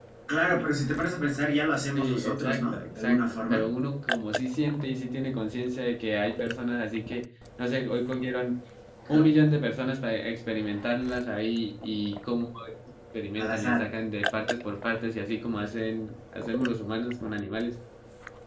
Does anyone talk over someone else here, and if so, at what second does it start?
2 s

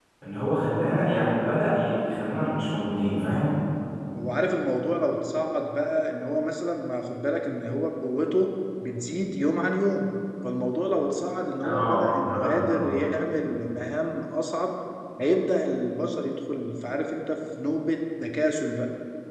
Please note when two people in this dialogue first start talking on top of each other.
12 s

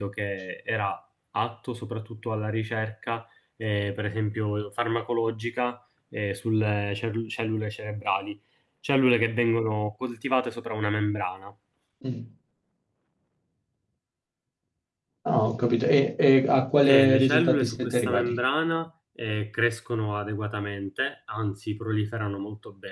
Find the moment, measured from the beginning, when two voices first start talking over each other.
17 s

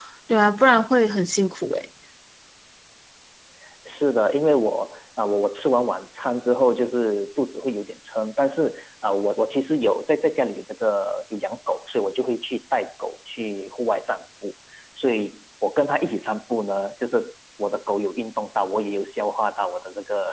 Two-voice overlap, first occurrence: none

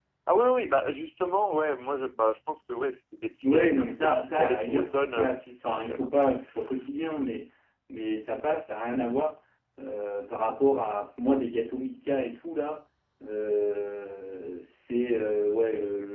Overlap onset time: 3 s

